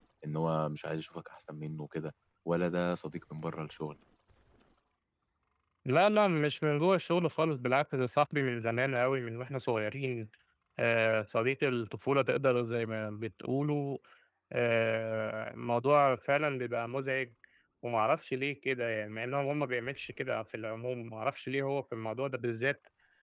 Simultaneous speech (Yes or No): No